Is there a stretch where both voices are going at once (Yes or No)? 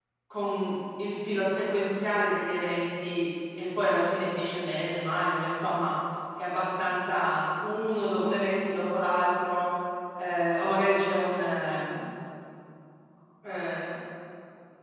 No